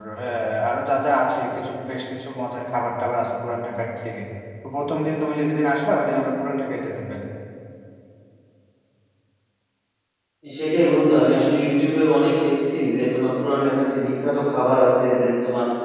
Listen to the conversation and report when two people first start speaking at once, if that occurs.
none

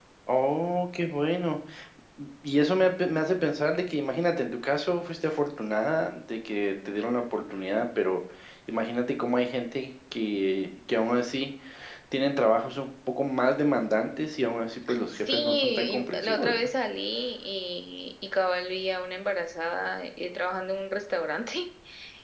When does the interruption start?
15.1 s

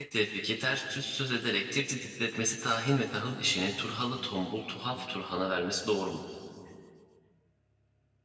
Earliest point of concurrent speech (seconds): none

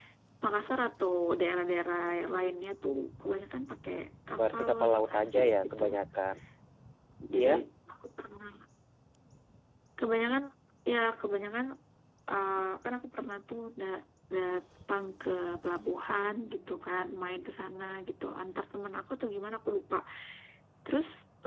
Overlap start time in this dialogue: 4.4 s

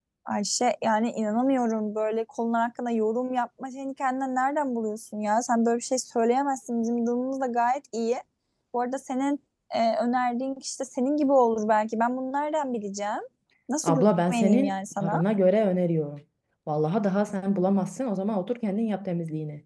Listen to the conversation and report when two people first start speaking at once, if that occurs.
13.8 s

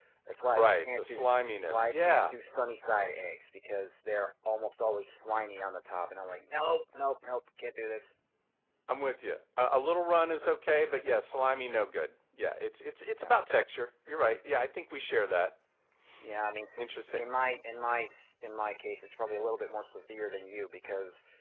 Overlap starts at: 0.5 s

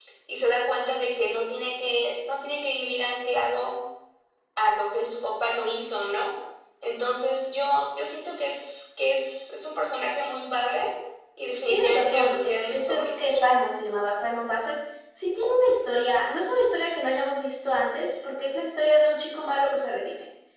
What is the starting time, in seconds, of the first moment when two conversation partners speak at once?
11.7 s

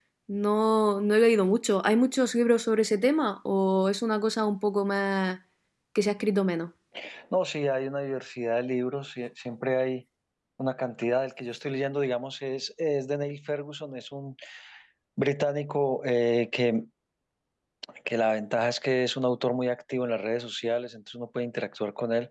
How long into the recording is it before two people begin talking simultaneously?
none

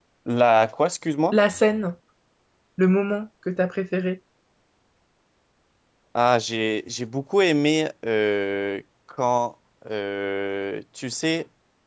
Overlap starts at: none

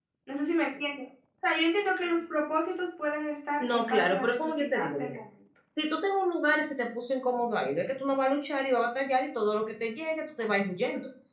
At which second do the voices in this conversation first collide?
3.6 s

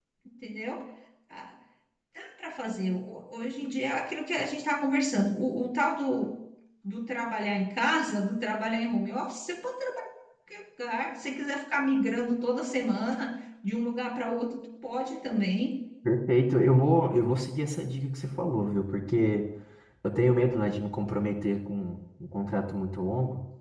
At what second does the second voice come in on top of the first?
none

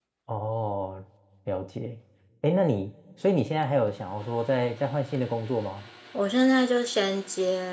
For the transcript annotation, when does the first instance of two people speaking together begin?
none

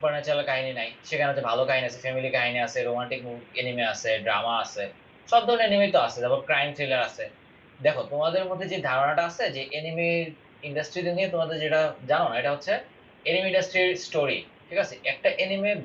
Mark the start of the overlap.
none

